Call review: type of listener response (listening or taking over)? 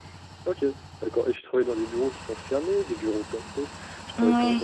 listening